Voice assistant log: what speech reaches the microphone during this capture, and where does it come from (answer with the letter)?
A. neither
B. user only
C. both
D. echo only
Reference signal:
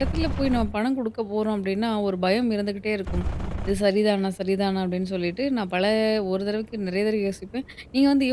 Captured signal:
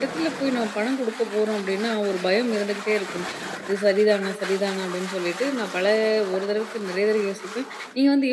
D